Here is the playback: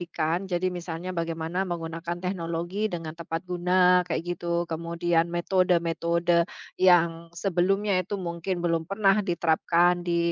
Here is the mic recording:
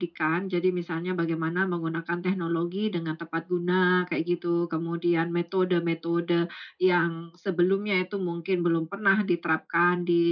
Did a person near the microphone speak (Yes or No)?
No